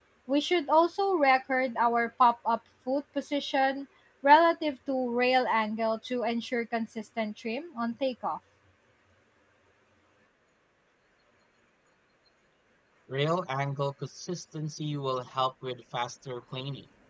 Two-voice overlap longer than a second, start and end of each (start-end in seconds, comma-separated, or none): none